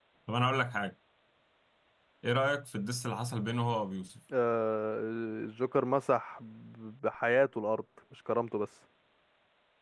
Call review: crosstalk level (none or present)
none